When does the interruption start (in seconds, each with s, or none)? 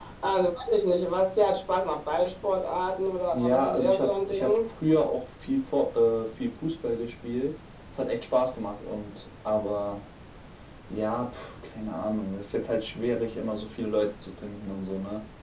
3.3 s